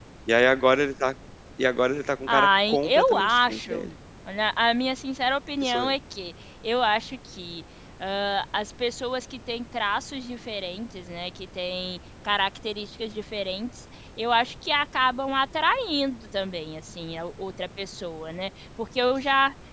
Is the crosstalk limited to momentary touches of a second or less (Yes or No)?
No